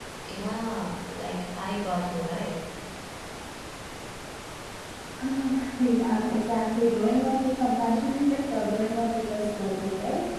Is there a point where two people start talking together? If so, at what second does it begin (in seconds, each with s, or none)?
none